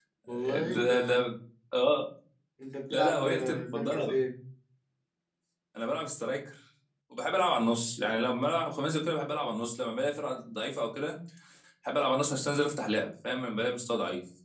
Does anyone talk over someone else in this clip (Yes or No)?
Yes